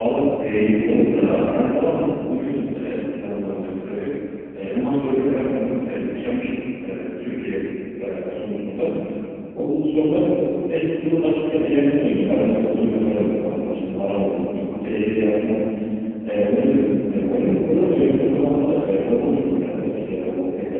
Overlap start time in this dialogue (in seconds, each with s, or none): none